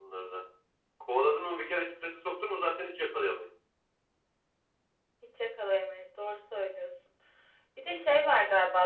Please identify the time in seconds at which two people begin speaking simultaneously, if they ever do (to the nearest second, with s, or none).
none